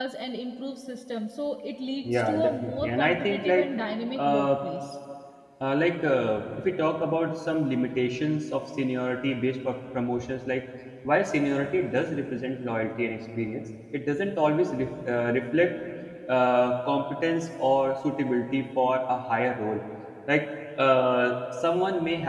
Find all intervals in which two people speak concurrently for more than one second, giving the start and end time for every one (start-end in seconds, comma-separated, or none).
2.1-3.7